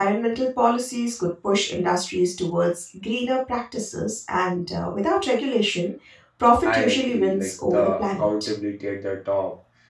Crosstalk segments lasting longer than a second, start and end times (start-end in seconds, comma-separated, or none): 6.6-8.5